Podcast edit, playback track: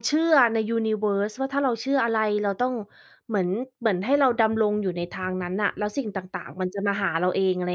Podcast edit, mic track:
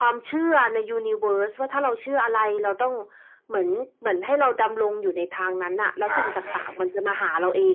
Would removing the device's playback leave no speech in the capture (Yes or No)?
No